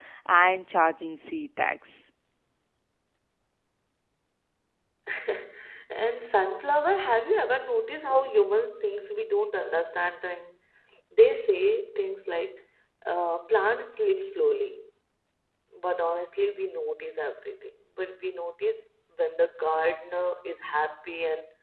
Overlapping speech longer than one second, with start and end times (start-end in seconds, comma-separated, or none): none